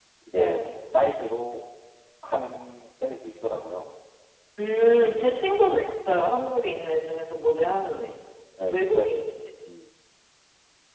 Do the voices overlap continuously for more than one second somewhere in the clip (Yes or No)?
No